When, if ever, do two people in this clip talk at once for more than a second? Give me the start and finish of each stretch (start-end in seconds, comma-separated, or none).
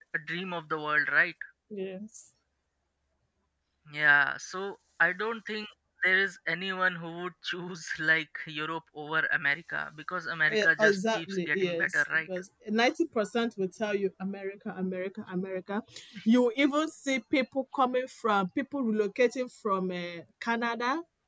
10.5-12.0